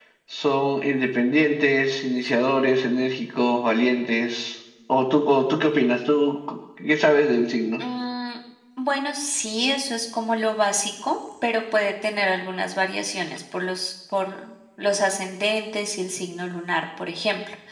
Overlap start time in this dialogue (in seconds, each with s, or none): none